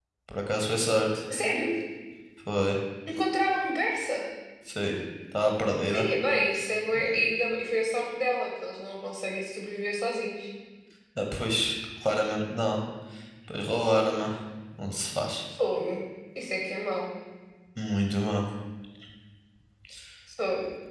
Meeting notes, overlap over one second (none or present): none